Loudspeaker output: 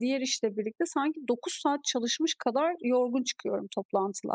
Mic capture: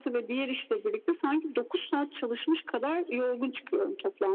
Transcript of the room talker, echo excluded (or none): none